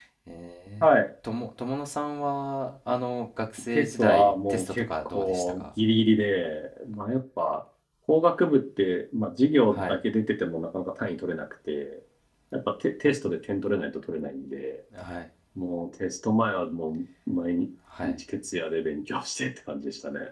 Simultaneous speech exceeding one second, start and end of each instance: 3.7-5.6

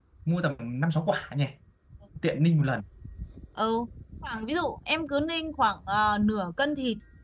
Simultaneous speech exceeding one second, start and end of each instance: none

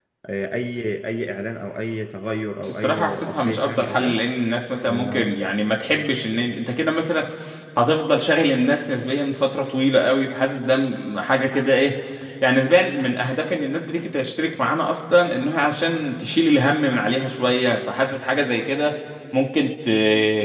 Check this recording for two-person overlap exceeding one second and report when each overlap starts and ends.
2.7-4.2

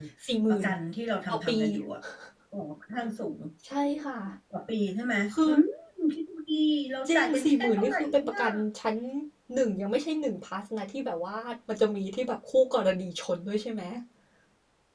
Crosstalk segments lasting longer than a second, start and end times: 7.1-8.4

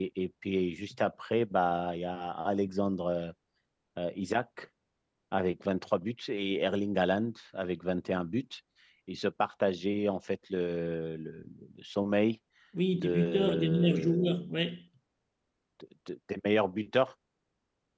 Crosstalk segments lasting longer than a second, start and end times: 12.9-14.5

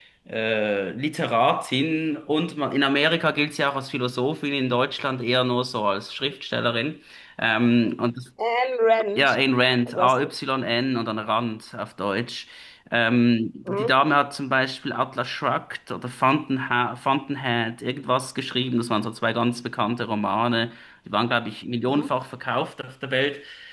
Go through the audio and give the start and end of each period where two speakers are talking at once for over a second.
none

